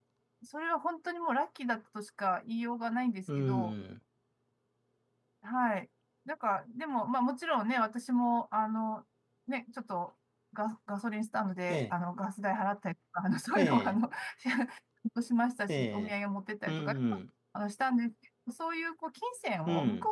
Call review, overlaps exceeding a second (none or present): none